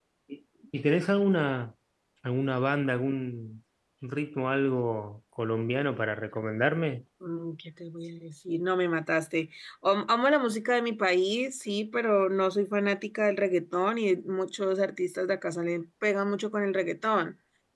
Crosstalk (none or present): none